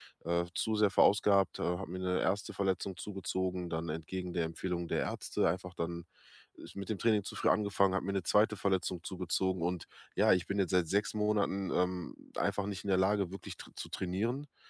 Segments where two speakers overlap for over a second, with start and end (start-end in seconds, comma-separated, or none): none